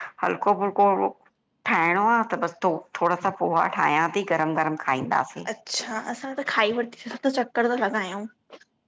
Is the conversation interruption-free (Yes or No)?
Yes